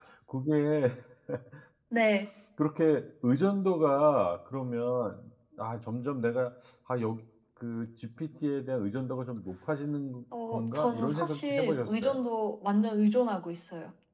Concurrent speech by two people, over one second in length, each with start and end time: 10.5-12.2

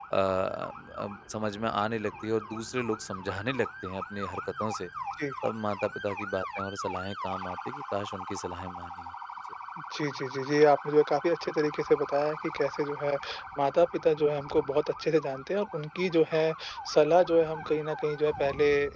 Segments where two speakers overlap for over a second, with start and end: none

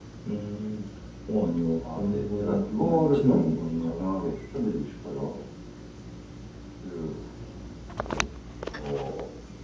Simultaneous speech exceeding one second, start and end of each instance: 1.9-3.9

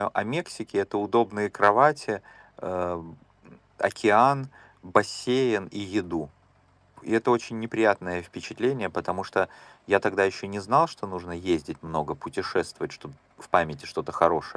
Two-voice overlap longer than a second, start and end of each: none

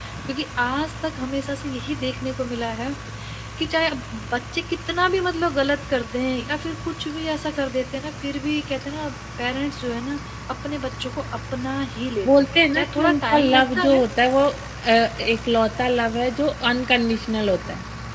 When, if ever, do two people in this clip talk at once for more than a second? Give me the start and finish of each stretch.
12.2-14.0

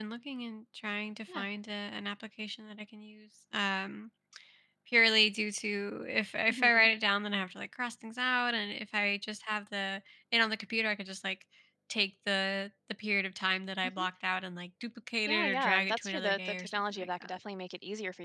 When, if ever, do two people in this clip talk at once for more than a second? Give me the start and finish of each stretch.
15.3-17.4

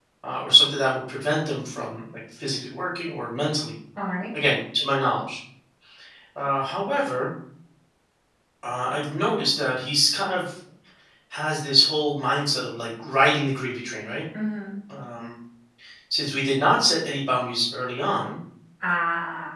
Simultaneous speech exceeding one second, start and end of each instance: none

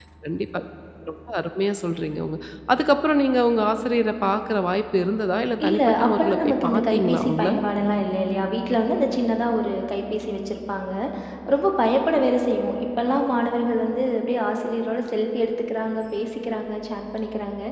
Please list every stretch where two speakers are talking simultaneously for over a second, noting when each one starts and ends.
5.7-7.5

